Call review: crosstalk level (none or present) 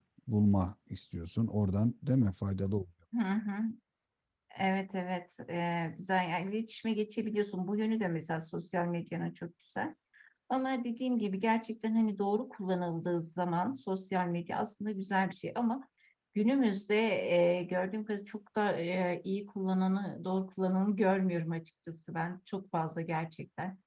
none